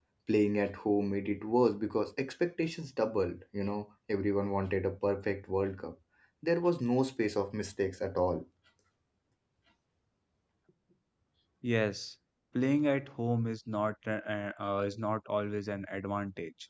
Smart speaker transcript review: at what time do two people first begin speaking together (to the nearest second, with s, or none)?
none